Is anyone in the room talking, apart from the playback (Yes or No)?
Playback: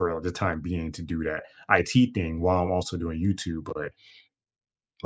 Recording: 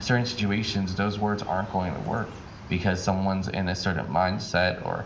Yes